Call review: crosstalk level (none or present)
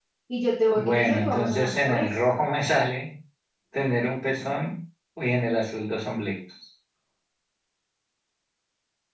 present